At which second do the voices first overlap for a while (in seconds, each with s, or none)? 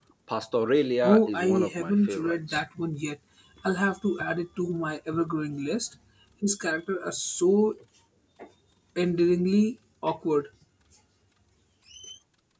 1.0 s